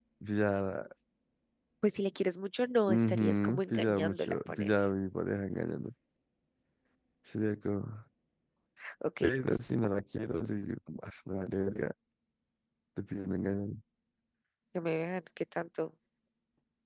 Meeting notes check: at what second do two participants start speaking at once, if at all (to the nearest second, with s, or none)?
3 s